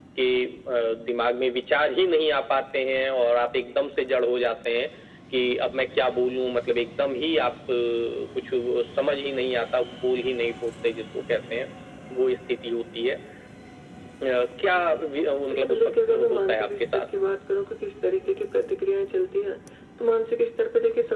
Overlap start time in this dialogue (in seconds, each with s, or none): 15.5 s